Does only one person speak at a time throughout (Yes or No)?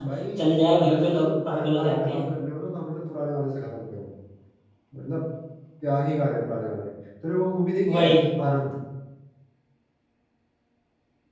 No